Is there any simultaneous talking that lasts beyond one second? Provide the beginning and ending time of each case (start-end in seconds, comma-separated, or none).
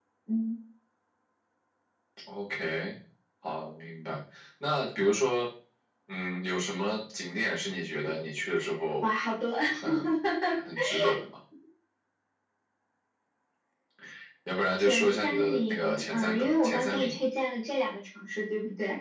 14.8-17.2